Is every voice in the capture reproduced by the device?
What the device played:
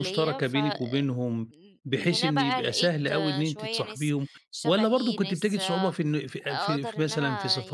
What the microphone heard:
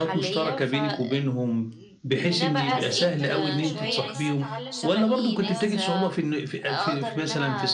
No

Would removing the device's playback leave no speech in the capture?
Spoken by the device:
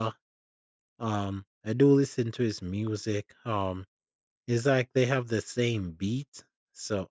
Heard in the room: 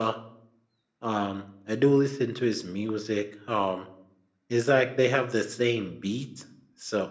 Yes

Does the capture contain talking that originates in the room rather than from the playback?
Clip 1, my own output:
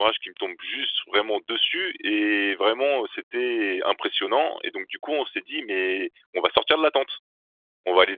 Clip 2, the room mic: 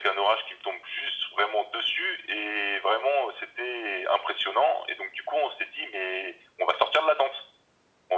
No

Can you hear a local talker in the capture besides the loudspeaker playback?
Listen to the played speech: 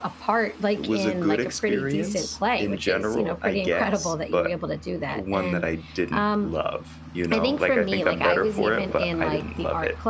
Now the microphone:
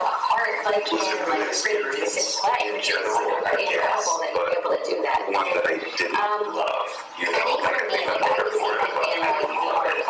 No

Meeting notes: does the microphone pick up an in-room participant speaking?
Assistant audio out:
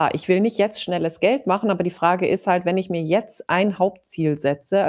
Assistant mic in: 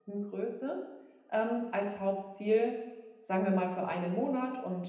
Yes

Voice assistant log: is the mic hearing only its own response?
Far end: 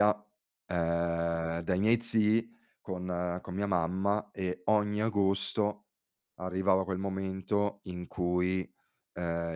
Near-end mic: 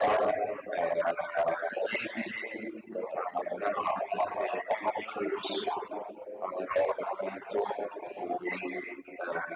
Yes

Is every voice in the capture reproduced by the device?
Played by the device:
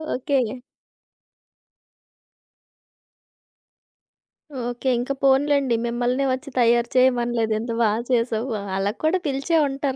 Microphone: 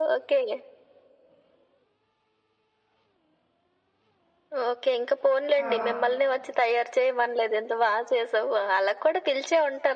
No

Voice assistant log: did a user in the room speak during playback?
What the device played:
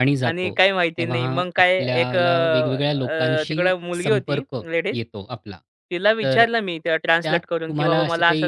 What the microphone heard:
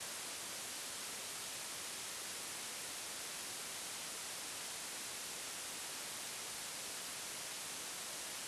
No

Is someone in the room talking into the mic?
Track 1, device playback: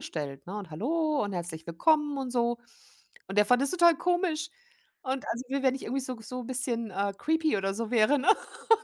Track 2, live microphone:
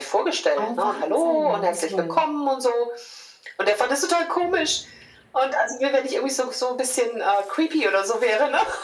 Yes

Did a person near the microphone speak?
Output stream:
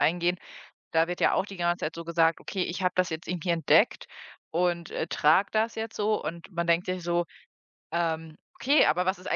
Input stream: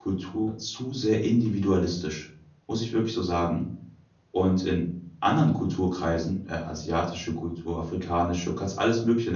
Yes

